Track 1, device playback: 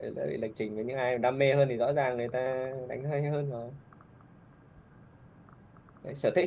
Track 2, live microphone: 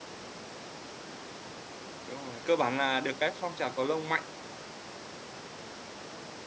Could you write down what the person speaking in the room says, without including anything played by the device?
đúng rồi cơ bản là được cái phong trào cầu lông mạnh

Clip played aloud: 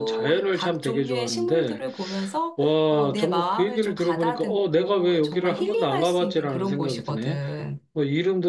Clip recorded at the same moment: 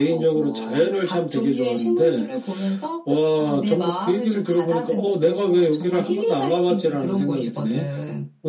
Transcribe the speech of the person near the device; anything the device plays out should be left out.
none

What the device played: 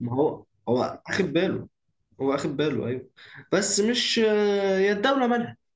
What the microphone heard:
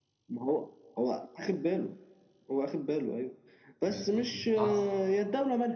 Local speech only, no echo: ما- كنت متعصب

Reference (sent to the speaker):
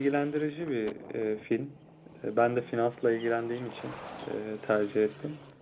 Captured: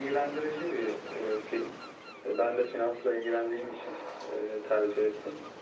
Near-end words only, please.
none

